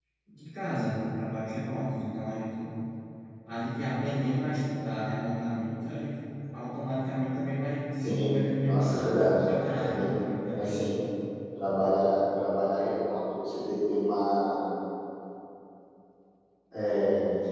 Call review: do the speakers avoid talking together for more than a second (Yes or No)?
No